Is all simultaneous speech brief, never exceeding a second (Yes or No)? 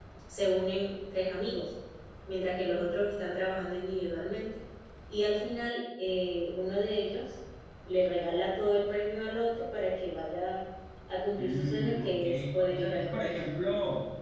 No